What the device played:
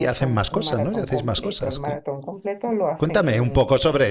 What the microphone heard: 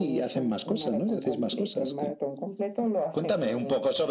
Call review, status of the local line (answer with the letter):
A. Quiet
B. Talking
A